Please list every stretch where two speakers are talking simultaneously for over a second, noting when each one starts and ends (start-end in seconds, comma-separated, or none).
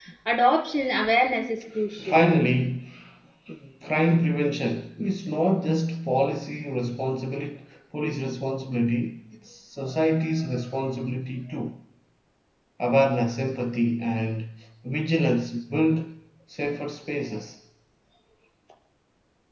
none